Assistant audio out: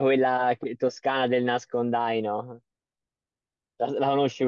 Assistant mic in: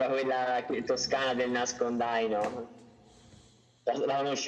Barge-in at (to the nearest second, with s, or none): none